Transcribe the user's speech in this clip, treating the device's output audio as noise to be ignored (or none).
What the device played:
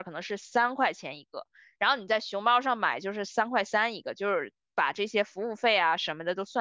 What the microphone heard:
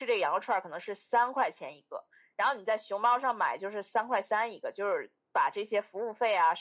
none